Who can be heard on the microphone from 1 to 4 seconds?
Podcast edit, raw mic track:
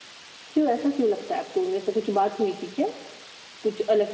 user only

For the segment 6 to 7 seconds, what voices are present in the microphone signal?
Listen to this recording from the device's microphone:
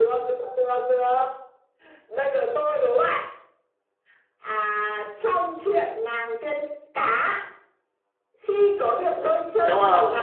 echo only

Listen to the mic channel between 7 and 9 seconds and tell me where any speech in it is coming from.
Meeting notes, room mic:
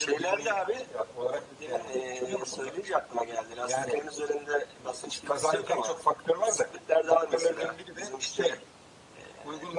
echo only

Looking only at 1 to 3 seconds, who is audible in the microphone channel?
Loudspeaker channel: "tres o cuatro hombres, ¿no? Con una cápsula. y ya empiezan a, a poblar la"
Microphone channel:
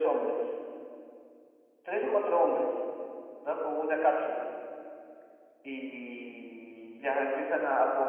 echo only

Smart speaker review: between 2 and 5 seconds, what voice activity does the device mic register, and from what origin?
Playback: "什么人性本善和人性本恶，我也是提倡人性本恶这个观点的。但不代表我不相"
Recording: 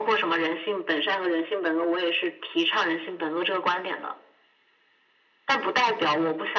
echo only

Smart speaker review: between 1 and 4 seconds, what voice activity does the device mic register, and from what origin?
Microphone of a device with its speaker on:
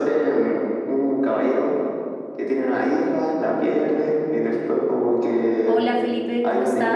echo only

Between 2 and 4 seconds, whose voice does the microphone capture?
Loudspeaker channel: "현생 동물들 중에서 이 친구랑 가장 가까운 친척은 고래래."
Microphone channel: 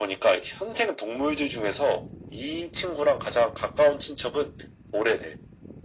echo only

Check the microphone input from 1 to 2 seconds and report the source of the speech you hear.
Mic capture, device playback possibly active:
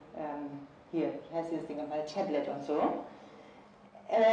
echo only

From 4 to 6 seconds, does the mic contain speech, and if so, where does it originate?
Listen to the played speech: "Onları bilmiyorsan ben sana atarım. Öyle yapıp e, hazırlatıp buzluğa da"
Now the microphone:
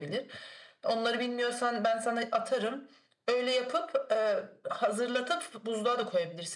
echo only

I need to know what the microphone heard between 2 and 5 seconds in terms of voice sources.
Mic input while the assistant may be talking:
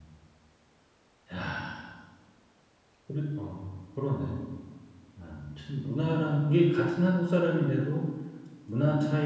user only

